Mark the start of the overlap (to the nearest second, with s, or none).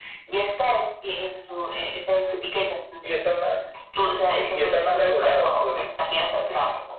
4 s